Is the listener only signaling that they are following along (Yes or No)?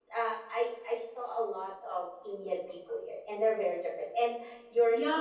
No